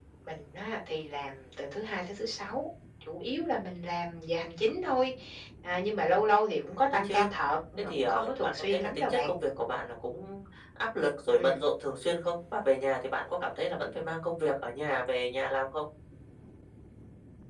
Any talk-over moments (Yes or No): Yes